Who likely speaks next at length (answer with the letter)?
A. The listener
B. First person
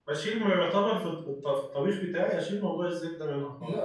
A